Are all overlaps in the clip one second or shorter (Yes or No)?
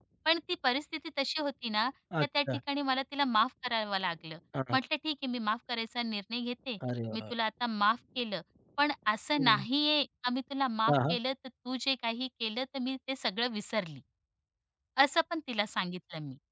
Yes